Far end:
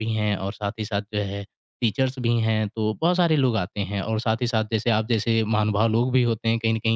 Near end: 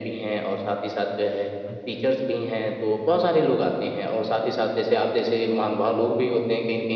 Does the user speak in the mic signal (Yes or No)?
Yes